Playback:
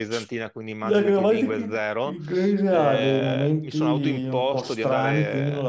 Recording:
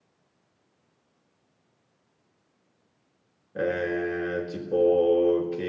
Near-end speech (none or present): present